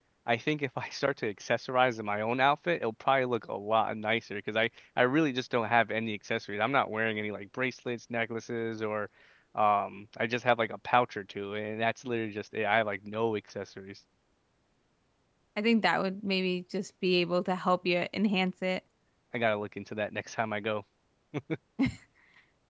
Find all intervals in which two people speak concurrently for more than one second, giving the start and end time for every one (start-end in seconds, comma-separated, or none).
none